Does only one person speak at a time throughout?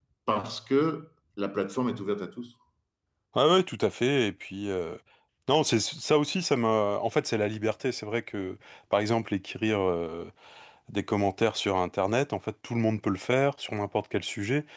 Yes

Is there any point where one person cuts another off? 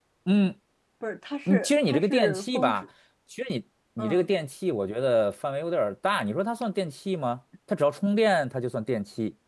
Yes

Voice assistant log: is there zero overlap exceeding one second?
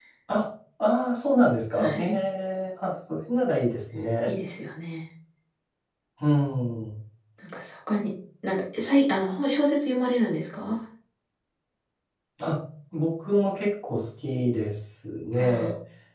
Yes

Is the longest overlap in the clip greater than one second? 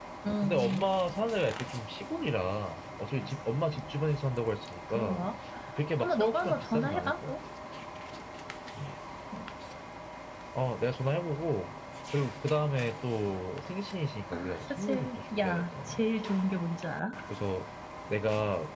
Yes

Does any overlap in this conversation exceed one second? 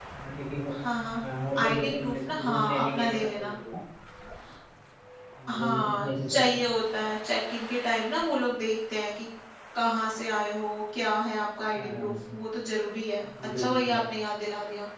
Yes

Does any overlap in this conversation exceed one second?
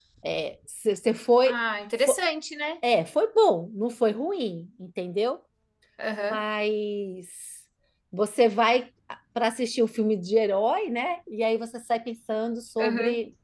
No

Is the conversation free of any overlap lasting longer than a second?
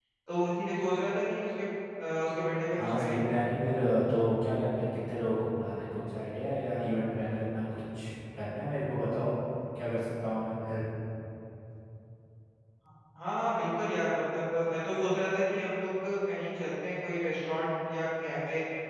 Yes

